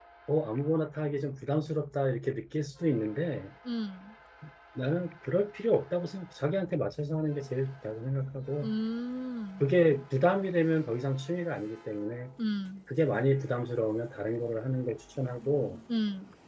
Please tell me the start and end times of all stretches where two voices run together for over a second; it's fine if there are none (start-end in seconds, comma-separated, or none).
none